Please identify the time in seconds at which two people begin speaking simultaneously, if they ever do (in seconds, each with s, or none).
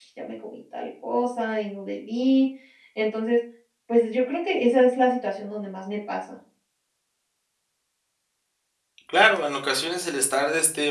none